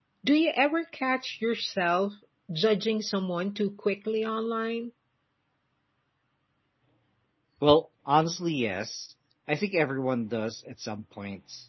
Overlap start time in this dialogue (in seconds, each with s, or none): none